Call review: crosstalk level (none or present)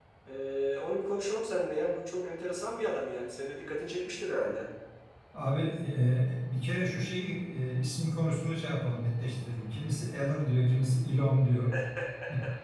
none